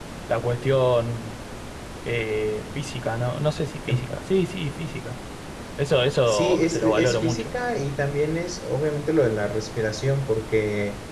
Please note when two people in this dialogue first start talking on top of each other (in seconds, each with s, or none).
6.3 s